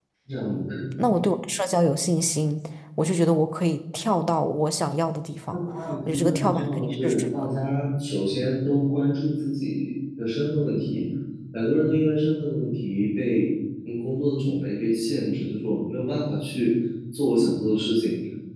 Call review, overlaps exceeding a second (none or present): present